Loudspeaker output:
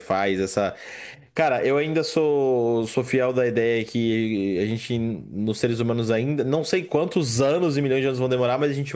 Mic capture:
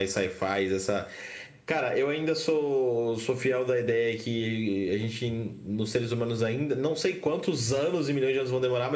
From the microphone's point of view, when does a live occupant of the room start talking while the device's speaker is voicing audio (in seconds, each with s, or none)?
none